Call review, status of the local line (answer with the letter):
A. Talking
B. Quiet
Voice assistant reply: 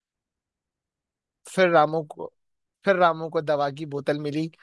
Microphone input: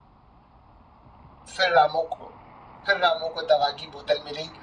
B